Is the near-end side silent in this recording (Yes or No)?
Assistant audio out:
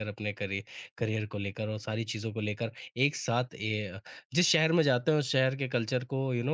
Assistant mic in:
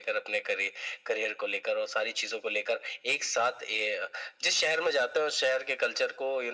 Yes